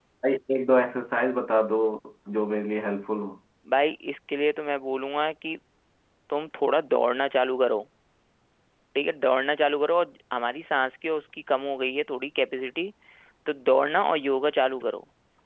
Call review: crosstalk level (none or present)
none